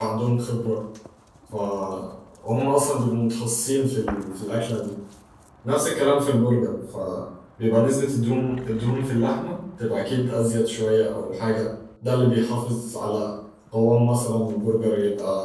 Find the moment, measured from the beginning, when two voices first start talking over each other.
none

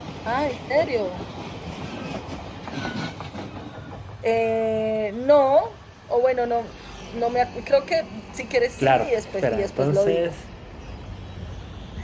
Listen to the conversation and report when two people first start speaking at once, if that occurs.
8.8 s

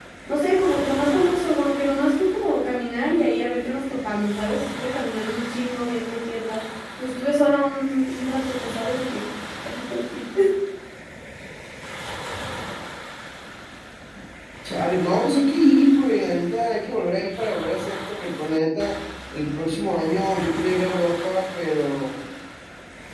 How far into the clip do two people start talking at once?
none

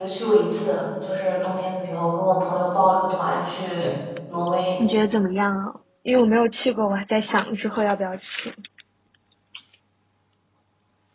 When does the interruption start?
none

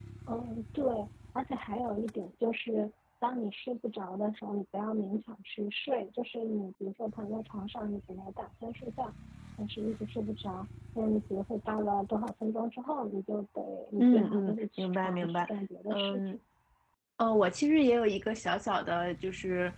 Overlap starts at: 14.0 s

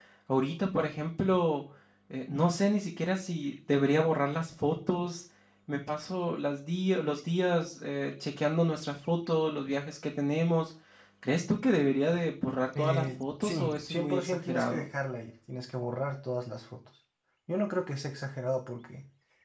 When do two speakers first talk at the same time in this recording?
12.8 s

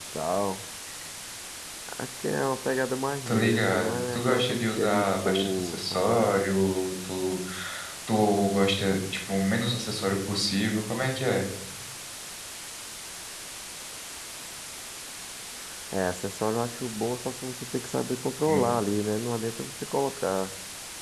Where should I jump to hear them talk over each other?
3.3 s

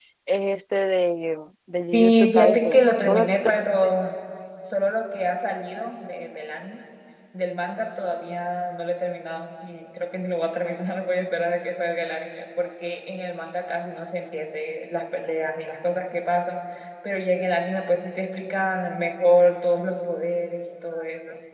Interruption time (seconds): 1.9 s

